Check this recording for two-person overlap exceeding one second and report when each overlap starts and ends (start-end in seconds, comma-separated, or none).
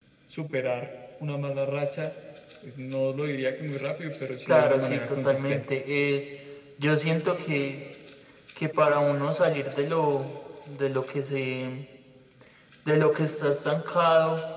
4.5-5.7